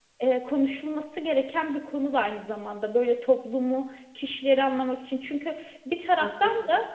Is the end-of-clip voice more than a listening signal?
No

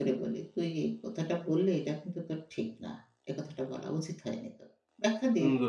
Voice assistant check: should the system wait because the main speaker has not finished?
No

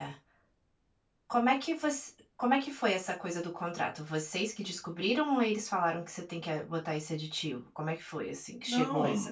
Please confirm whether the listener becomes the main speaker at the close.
Yes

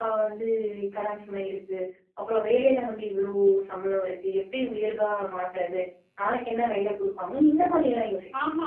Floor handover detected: Yes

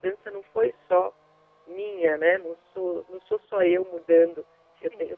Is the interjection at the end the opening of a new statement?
No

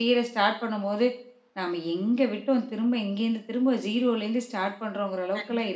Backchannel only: No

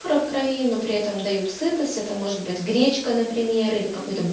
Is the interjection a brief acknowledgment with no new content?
Yes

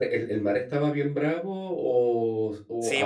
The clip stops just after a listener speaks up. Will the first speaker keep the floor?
No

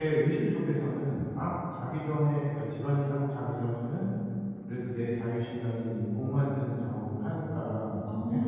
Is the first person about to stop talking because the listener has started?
No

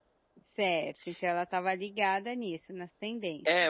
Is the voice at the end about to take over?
Yes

